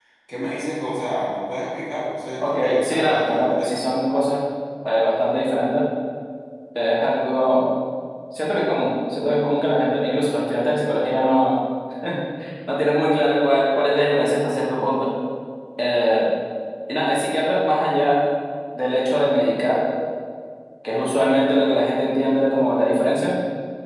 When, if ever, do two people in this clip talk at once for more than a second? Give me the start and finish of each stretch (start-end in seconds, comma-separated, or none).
2.4-3.8